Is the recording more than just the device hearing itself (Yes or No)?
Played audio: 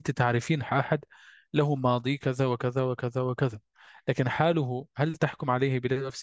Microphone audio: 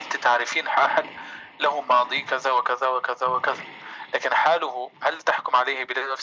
No